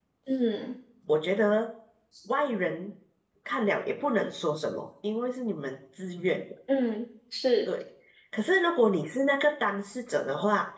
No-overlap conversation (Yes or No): Yes